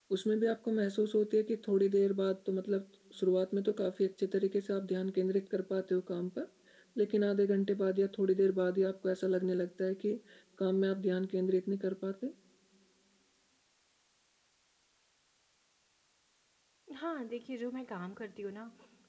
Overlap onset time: none

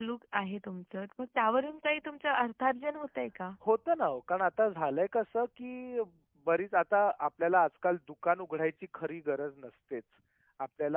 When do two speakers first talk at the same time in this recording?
none

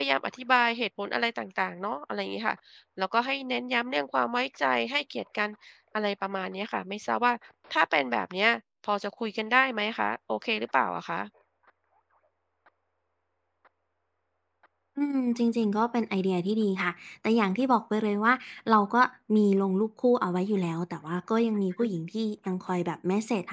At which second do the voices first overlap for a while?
none

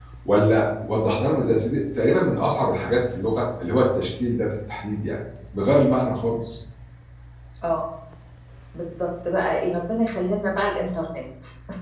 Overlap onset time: none

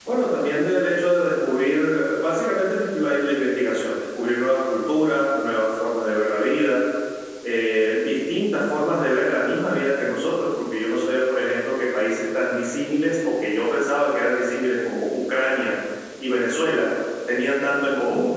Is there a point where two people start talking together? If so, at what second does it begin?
none

